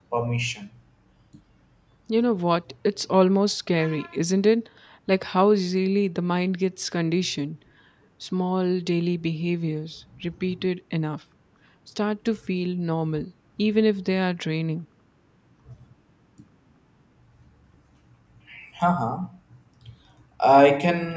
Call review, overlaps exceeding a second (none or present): none